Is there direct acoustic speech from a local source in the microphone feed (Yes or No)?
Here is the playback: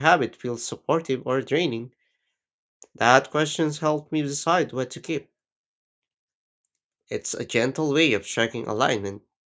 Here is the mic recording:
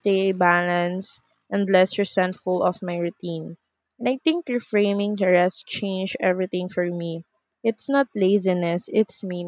Yes